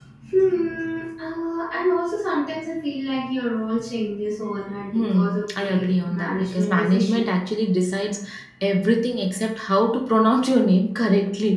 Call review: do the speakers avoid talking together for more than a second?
No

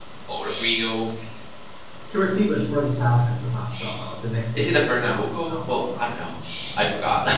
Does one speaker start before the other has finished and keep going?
Yes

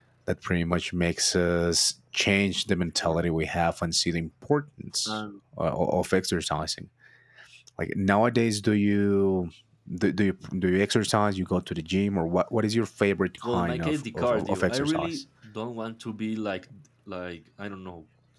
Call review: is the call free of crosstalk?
No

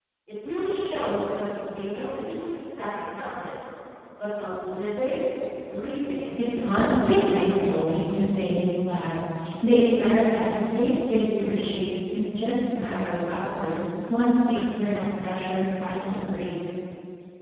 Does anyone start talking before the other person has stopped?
Yes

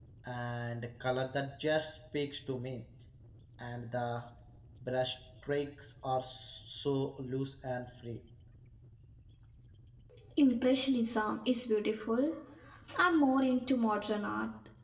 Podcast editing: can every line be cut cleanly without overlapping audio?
Yes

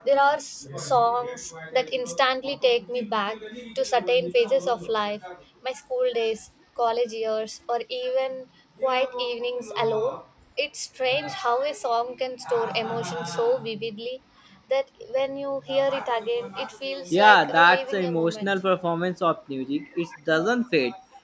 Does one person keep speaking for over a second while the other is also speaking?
Yes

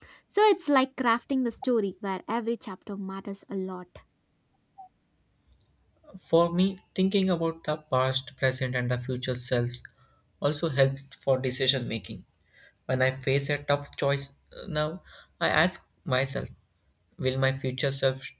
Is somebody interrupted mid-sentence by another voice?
No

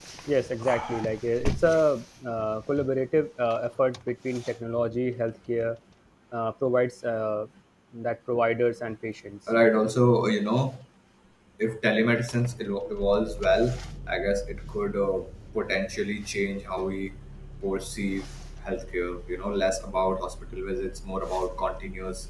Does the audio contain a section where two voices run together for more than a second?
No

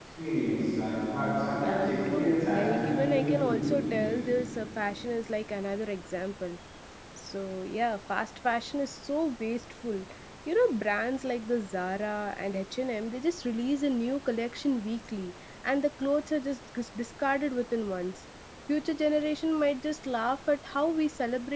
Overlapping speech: Yes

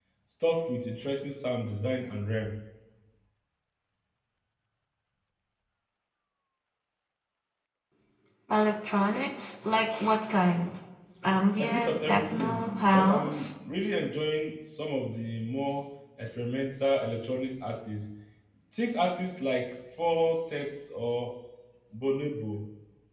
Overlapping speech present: Yes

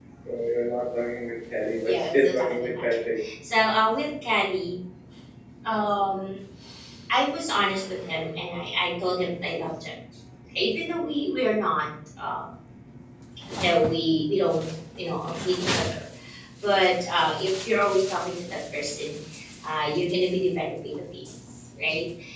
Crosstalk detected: Yes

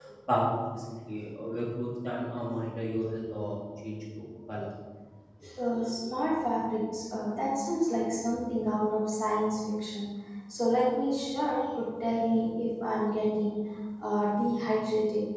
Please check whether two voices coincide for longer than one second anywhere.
No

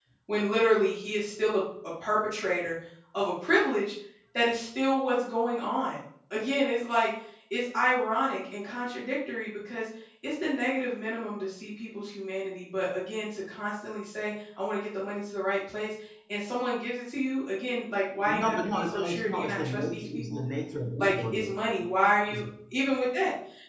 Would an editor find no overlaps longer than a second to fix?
No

